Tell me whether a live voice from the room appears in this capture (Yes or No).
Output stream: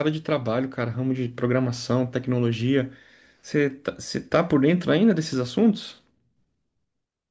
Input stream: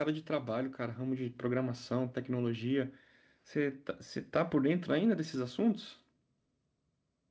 No